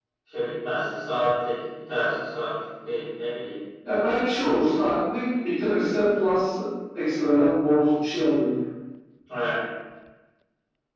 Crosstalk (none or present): none